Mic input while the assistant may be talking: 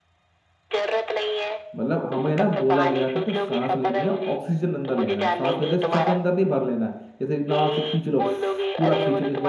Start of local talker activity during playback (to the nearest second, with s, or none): 2 s